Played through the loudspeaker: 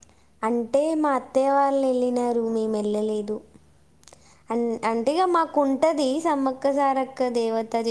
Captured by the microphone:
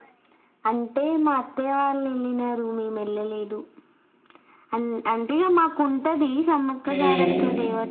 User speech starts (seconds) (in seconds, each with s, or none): 6.9 s